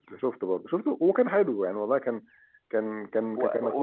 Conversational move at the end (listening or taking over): taking over